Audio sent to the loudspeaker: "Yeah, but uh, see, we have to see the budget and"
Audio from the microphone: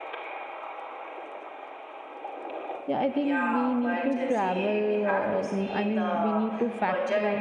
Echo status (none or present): present